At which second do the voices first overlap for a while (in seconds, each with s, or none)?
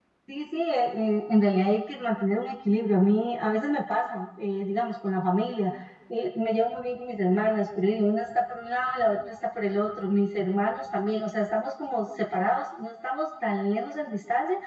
none